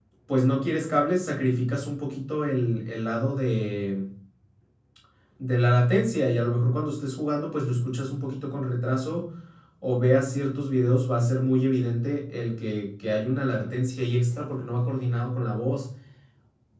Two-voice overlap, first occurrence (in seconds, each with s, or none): none